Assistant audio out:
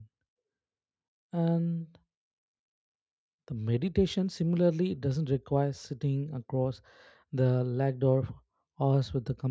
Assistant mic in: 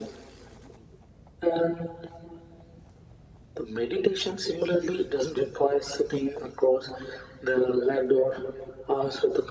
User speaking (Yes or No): No